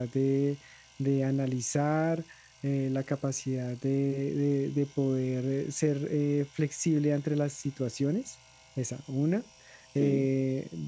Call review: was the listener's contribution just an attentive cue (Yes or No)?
Yes